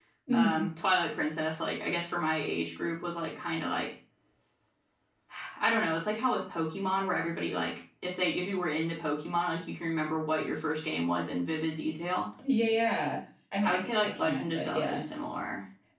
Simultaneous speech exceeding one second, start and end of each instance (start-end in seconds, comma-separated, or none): 13.6-15.0